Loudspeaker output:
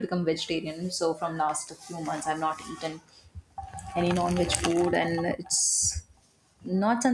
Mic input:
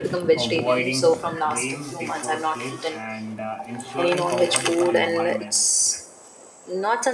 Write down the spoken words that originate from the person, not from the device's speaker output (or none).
avoiding screen before sleep, and uh, ensuring comfortable environment